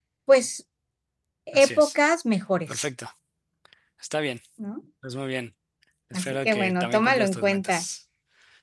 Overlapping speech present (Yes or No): Yes